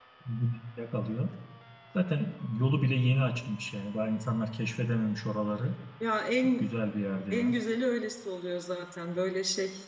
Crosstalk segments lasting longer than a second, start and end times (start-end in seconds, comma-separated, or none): none